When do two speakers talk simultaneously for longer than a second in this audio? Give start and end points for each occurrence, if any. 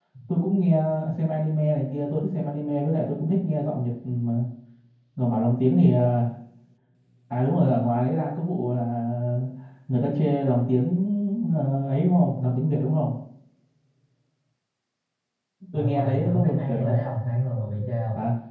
15.7-17.0

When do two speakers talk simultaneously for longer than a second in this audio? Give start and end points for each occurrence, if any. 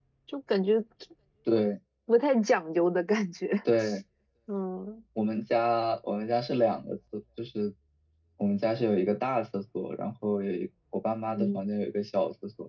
none

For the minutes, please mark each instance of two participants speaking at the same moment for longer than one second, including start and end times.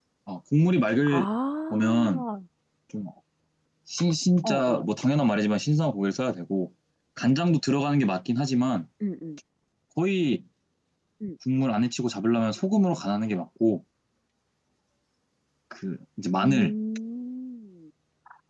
none

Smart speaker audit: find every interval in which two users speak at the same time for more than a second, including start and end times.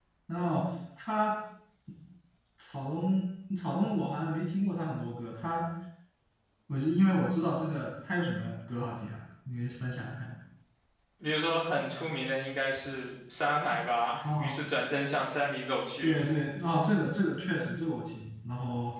none

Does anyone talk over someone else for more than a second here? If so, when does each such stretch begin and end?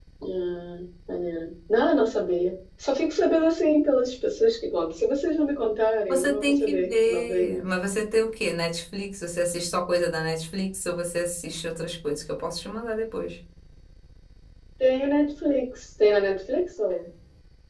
6.1-7.7

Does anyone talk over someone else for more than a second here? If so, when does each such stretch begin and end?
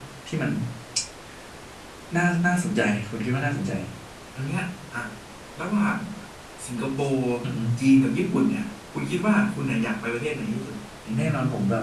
none

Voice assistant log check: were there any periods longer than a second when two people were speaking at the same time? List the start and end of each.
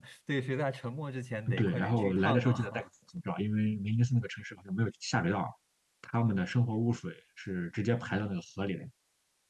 1.6-2.8

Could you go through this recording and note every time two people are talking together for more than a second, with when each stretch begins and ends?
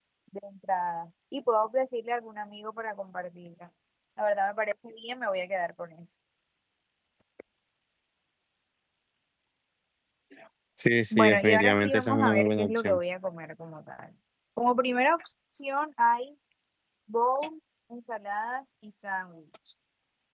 11.2-13.0

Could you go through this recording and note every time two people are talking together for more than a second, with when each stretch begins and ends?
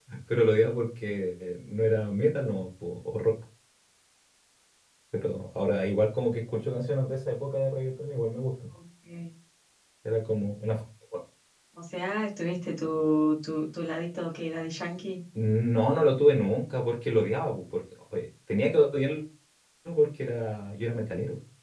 none

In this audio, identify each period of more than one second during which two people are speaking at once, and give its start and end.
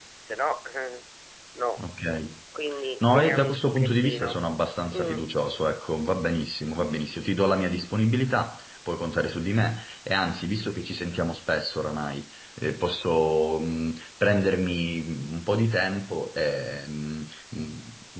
3.1-4.4

